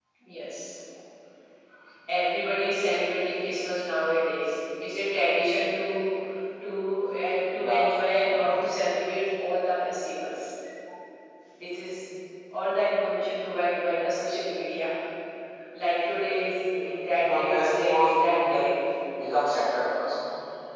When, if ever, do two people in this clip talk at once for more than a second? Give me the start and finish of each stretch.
17.2-18.6

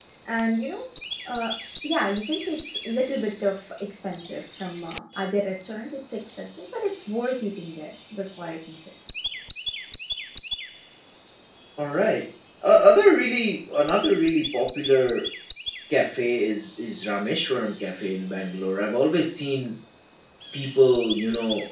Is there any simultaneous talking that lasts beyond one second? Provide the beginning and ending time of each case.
none

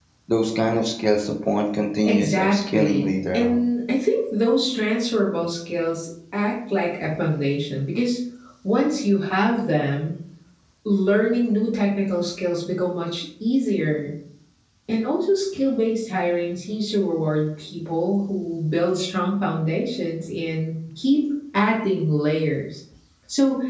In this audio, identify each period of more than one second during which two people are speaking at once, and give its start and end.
2.1-3.7

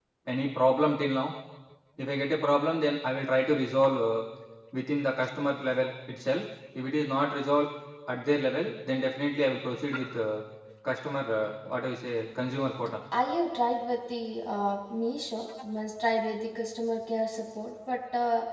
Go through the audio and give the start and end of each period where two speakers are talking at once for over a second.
none

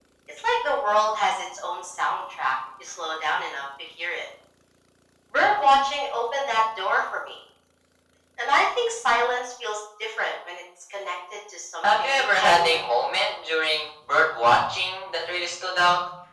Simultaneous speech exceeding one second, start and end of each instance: 11.8-13.3

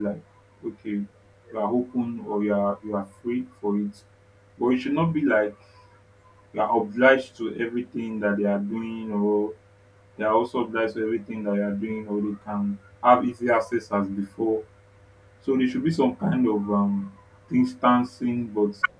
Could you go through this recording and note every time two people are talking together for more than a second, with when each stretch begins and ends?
none

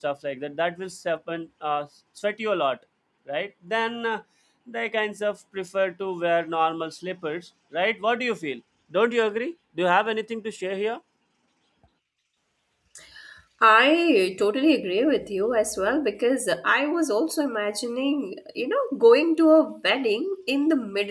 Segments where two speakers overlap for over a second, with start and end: none

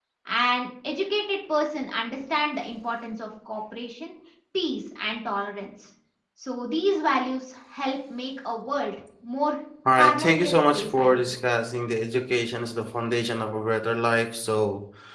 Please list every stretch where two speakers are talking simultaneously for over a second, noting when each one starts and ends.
9.9-11.2

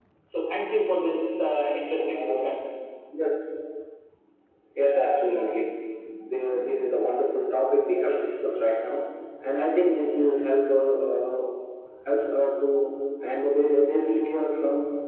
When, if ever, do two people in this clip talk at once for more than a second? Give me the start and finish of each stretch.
none

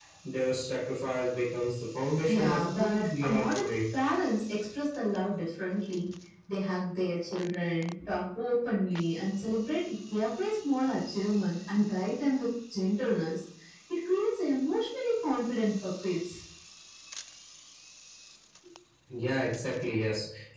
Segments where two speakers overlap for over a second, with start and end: 2.3-3.8

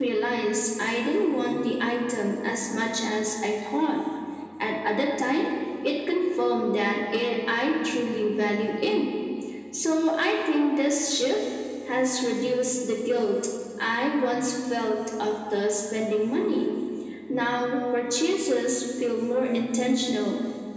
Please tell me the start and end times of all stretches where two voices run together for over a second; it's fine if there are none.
none

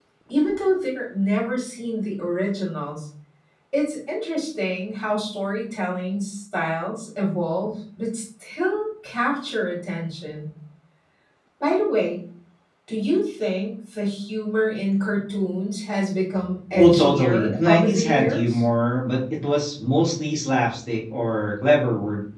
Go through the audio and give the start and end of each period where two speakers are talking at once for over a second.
16.7-18.6

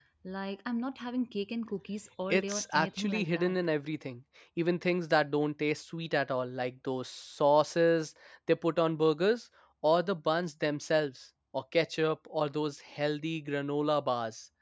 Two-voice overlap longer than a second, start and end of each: 2.3-3.6

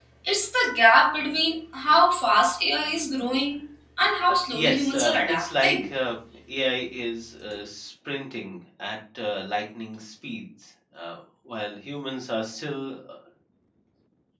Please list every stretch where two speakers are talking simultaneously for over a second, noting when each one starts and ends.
4.3-5.9

